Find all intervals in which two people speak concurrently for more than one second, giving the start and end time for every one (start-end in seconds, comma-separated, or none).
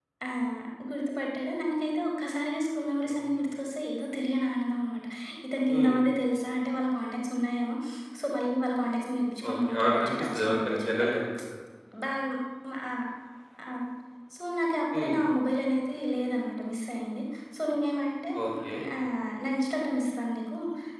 9.5-11.1